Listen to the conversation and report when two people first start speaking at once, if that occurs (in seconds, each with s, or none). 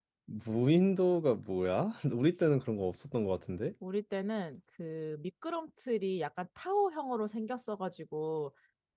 none